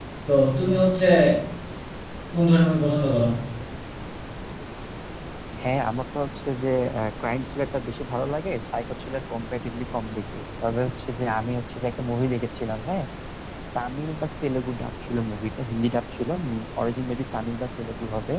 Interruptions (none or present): none